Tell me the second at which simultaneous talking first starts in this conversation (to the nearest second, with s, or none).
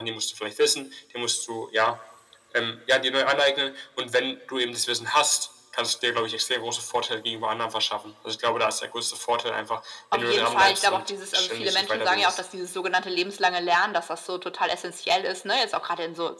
10 s